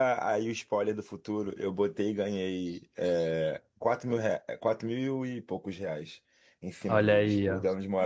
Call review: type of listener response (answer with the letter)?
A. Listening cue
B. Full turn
B